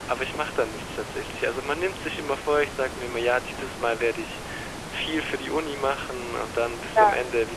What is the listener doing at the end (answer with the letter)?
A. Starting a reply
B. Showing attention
B